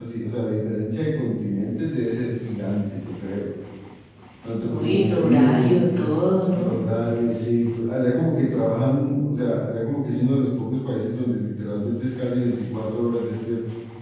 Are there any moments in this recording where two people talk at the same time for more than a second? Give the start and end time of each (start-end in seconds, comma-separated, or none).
4.6-6.0